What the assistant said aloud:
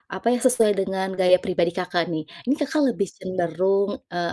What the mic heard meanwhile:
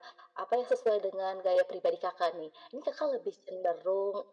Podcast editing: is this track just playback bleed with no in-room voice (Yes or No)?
Yes